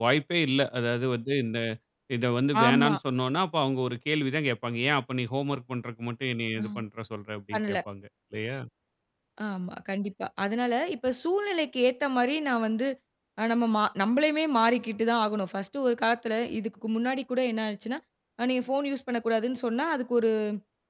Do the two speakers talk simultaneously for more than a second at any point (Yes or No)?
No